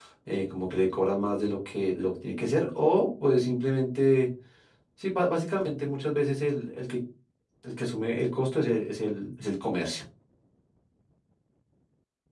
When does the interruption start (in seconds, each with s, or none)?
none